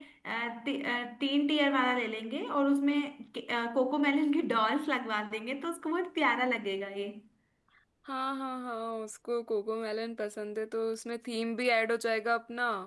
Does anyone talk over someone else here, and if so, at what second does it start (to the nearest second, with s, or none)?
none